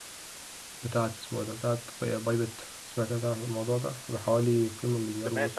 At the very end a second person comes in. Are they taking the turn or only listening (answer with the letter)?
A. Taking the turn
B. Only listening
A